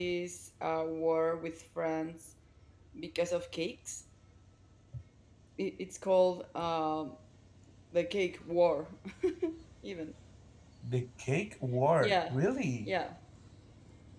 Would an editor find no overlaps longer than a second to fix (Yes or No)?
Yes